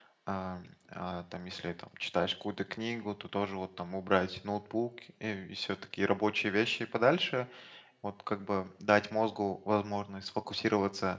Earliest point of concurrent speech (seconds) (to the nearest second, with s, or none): none